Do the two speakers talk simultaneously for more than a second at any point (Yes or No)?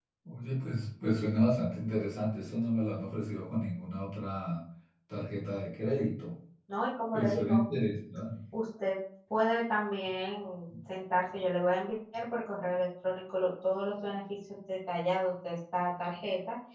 No